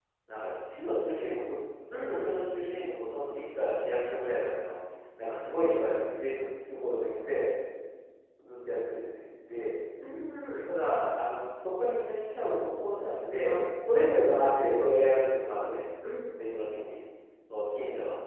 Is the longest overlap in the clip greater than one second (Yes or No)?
No